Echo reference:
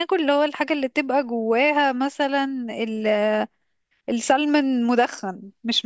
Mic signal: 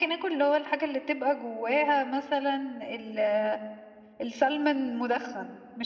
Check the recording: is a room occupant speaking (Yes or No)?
No